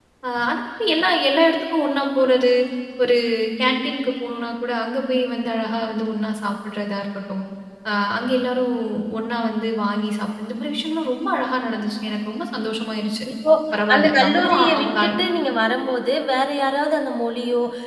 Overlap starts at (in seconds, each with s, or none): 13.9 s